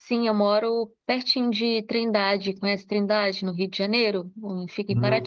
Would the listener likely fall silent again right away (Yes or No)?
No